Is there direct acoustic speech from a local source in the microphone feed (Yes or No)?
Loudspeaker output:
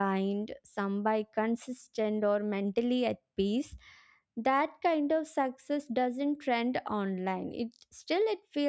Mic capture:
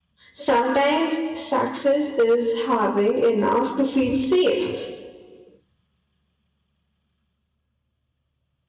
Yes